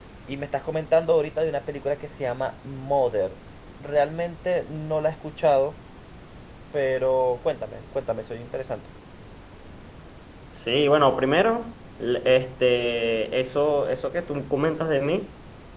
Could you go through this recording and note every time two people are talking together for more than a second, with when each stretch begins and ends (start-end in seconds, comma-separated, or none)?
none